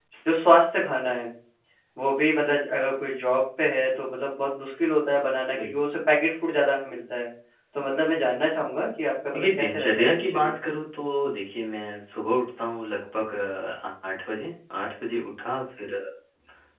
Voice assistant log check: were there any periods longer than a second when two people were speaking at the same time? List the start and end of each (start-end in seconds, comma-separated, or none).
9.3-10.5